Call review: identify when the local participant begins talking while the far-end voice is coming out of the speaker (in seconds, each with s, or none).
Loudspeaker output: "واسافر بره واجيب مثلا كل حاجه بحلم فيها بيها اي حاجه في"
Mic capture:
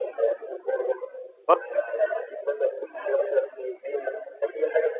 1.5 s